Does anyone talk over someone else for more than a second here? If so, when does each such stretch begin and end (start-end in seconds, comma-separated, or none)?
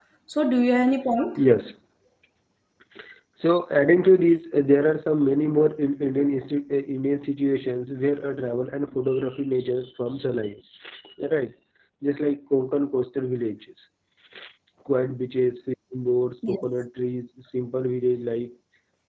none